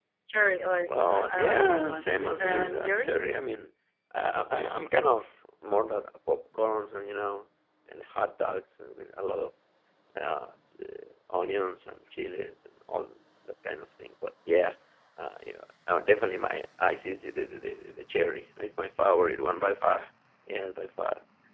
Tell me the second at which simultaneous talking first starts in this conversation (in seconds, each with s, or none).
0.9 s